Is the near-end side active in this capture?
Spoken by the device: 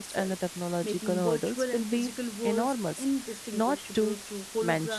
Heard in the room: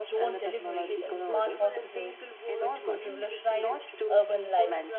Yes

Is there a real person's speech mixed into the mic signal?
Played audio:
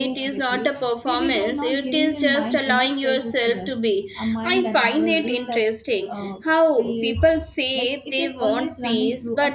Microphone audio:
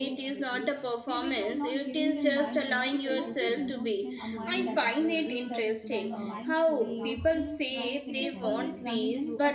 Yes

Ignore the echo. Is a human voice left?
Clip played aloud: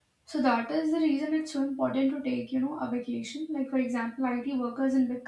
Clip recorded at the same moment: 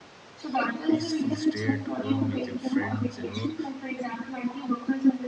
Yes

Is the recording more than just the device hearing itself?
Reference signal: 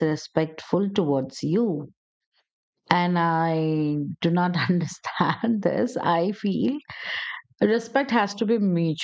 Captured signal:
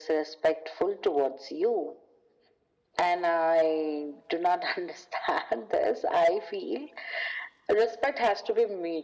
No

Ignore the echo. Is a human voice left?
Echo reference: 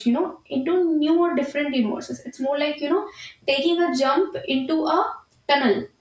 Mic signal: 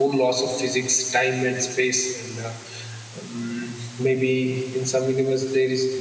Yes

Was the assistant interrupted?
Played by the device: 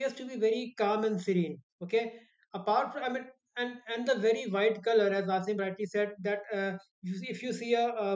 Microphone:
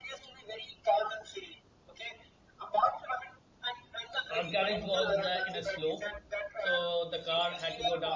Yes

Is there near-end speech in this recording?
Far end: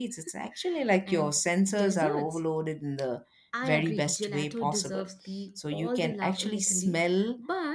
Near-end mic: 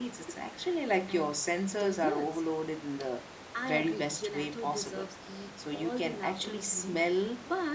No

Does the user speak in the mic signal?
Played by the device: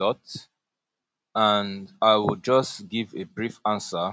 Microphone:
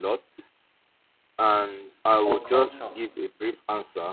Yes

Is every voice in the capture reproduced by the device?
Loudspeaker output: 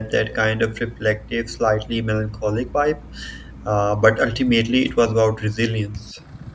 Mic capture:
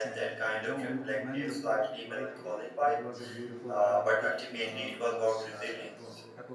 No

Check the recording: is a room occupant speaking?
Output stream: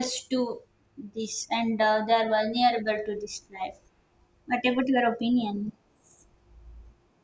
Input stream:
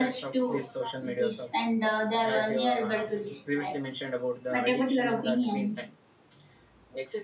Yes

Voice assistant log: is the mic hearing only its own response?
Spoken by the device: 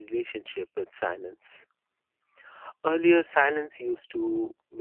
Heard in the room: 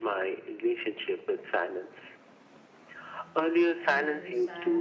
No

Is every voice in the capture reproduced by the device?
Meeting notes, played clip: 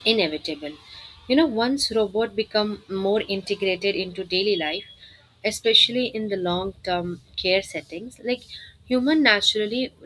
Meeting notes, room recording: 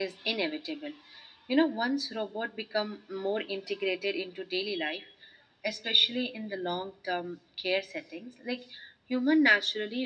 Yes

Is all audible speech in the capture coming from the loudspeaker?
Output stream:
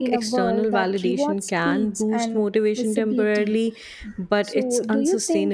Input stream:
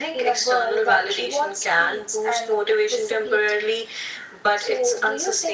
Yes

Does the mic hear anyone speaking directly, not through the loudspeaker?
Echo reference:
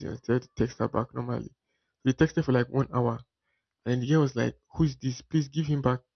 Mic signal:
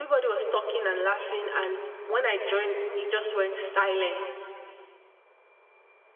Yes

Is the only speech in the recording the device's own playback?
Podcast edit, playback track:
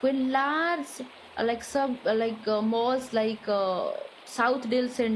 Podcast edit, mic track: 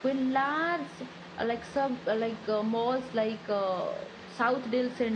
Yes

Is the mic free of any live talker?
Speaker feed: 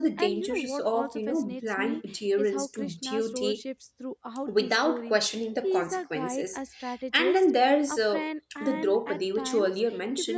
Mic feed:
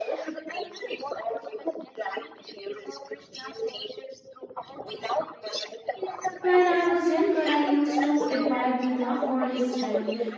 No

